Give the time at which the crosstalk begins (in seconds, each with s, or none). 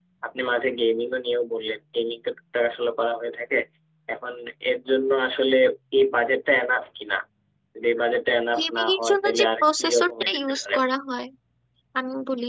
8.6 s